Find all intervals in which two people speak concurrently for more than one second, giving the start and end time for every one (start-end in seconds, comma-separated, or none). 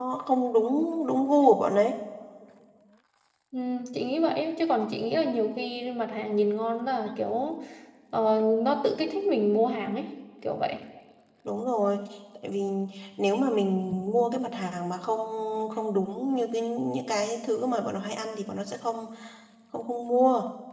none